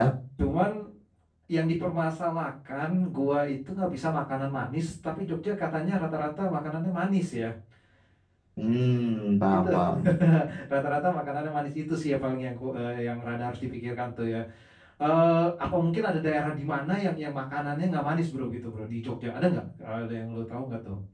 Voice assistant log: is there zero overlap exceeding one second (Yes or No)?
Yes